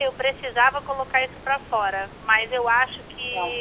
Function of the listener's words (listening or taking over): listening